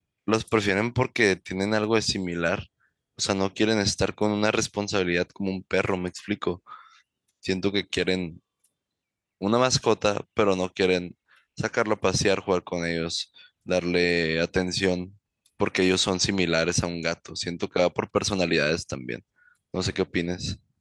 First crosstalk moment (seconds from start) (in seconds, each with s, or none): none